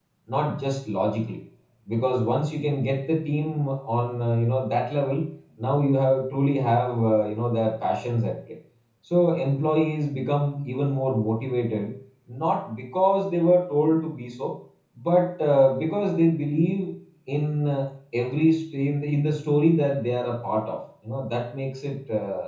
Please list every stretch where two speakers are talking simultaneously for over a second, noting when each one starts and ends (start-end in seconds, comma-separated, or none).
none